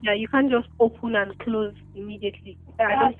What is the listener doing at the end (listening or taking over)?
taking over